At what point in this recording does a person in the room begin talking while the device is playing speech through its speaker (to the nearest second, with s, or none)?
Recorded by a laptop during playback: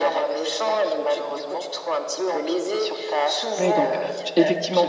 4 s